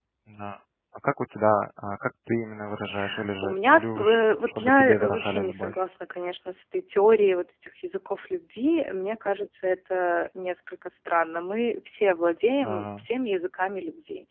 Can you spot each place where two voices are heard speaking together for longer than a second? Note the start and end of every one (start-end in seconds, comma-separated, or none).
3.4-5.8